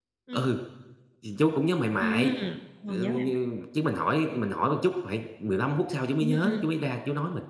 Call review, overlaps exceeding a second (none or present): none